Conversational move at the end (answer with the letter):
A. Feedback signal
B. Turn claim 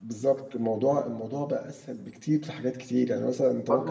B